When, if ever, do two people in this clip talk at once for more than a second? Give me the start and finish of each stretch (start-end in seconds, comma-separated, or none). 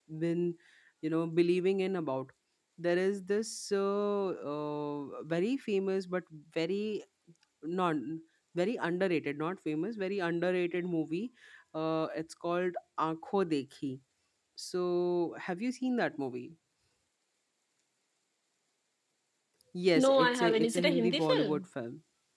20.0-21.6